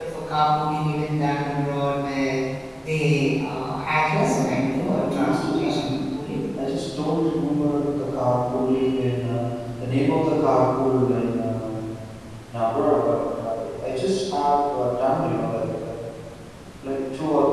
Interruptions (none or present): present